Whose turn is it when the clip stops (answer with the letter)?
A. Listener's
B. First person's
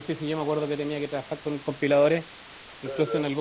B